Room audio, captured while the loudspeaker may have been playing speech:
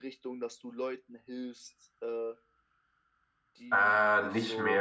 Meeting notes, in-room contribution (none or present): present